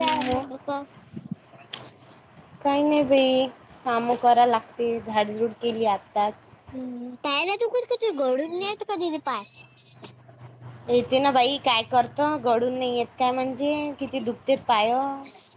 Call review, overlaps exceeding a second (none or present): none